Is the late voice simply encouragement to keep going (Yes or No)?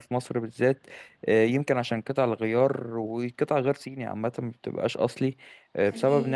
Yes